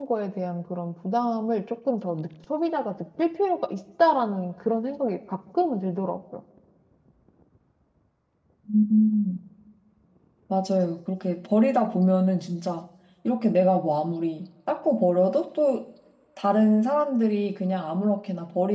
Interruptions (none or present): none